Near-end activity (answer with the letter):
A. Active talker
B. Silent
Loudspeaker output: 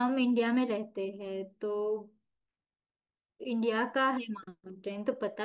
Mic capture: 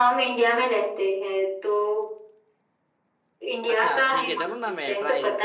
A